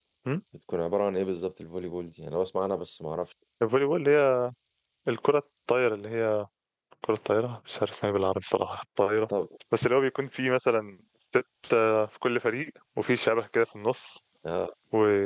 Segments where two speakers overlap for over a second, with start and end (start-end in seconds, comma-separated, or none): none